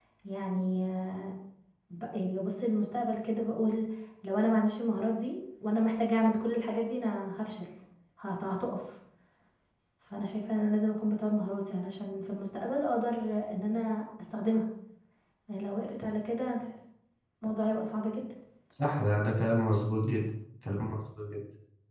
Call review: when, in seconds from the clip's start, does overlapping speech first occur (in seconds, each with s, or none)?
none